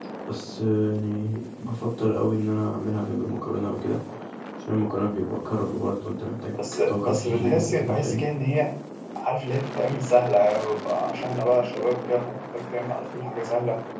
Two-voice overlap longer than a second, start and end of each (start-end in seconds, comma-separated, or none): 6.7-8.3